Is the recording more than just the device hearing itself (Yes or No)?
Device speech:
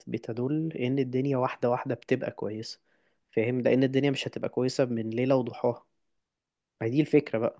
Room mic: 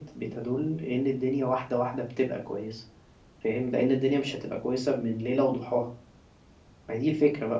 No